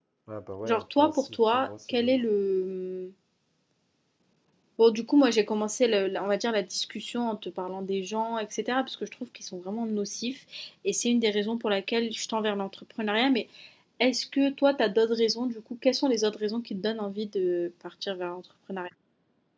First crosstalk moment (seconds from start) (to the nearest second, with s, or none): 1 s